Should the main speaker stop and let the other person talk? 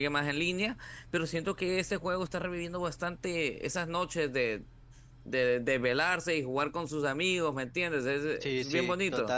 Yes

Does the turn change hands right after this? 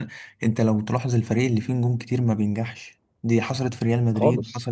No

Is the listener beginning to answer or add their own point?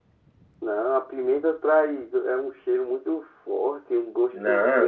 Yes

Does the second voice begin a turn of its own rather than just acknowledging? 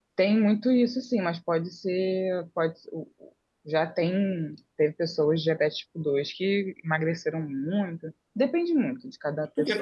Yes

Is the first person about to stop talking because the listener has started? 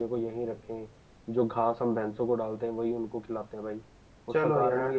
Yes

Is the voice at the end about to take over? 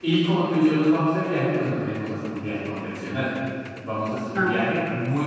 No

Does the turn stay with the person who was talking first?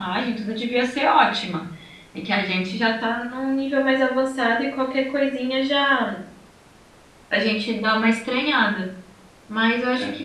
Yes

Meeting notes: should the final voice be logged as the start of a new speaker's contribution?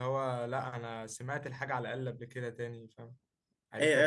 Yes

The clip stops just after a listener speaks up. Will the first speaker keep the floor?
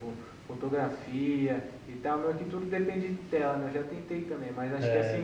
Yes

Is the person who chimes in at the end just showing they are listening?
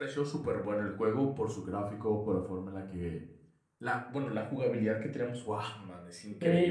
No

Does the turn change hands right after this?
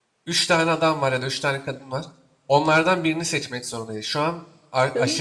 No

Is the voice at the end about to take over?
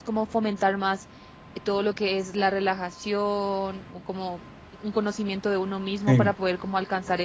No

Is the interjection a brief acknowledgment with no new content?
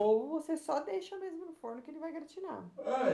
No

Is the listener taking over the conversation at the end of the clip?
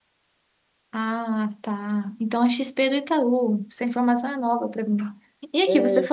No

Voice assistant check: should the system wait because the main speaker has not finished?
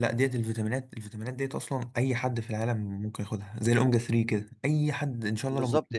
No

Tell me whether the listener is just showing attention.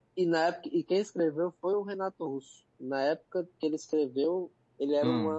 Yes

